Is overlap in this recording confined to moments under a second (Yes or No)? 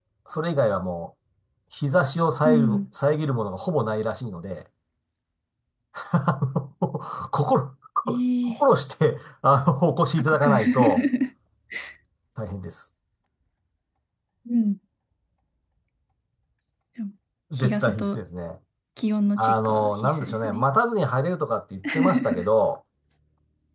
No